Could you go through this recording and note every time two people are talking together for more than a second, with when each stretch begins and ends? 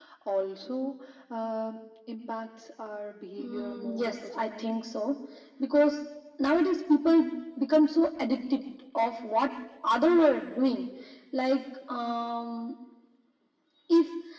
3.4-4.8

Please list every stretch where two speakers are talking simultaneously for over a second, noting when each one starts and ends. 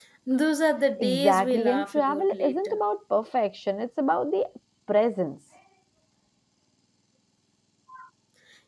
1.0-2.8

